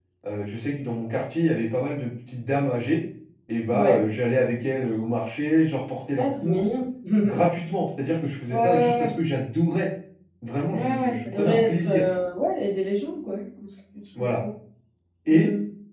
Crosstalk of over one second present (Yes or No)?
Yes